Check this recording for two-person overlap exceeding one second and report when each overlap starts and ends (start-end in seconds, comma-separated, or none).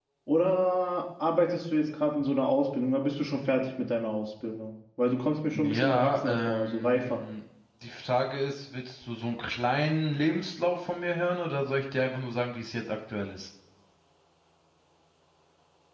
5.5-7.2